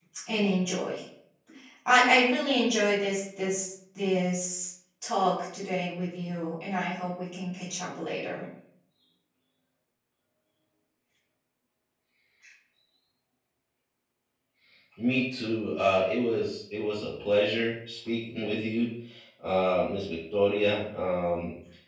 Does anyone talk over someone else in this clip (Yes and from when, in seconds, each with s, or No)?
No